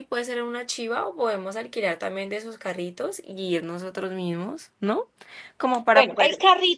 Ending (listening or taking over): taking over